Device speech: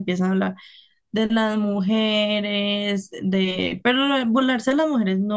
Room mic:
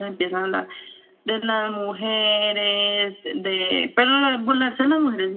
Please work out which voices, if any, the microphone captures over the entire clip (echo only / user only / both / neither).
echo only